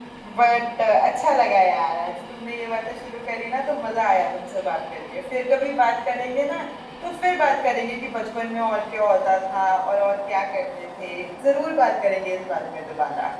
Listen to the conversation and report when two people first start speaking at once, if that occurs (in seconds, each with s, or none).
none